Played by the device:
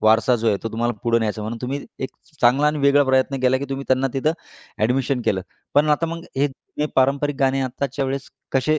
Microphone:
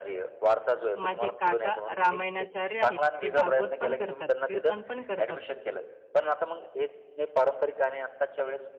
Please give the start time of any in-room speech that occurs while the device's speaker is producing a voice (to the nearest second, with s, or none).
1 s